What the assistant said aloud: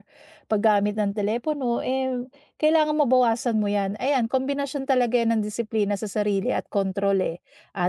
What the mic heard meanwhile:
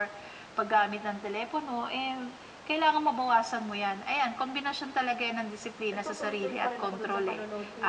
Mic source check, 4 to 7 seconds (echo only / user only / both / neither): both